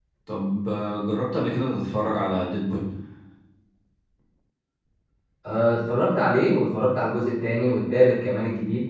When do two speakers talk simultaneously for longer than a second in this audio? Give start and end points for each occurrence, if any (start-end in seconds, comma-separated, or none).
none